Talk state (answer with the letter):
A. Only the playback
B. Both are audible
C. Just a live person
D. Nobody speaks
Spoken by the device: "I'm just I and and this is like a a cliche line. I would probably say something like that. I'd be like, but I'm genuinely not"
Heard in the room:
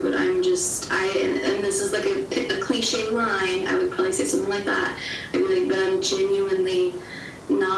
A